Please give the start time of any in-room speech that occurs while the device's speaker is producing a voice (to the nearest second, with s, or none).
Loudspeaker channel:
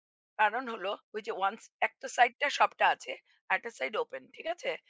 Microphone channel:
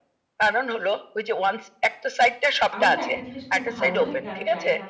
3 s